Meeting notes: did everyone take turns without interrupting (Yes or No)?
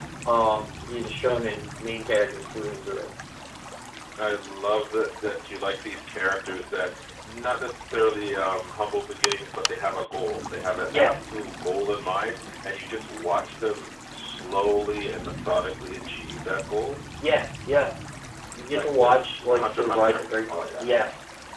No